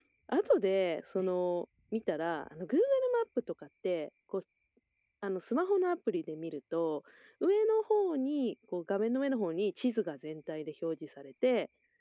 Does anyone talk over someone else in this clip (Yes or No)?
No